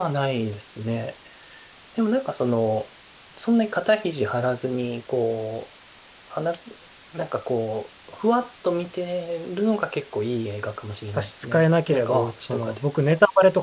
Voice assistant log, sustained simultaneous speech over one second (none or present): present